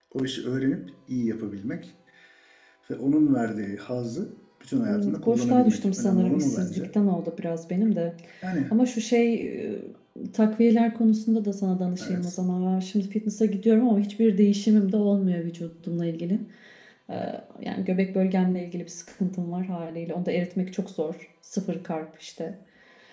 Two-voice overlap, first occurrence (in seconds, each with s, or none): 4.9 s